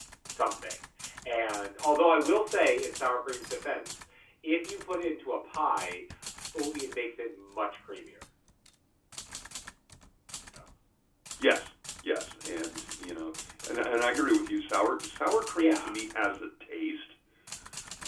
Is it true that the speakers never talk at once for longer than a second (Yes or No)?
Yes